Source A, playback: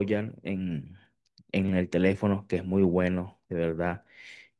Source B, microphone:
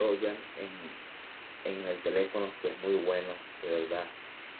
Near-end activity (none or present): none